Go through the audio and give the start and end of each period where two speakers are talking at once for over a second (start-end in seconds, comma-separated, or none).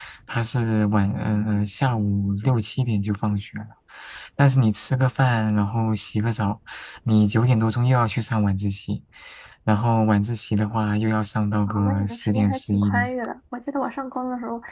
11.7-13.1